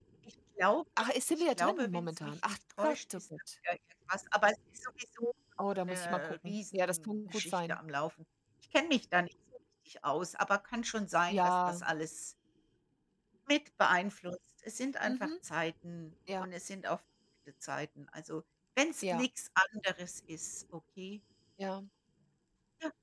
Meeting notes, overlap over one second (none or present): present